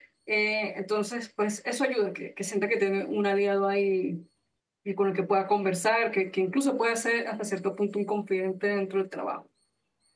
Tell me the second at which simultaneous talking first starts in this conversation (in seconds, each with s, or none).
none